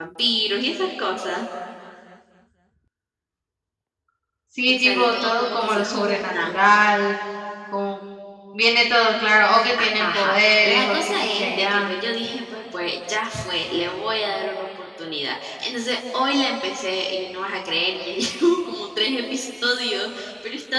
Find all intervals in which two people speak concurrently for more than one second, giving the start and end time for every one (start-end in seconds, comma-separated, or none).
4.7-6.6, 9.8-11.9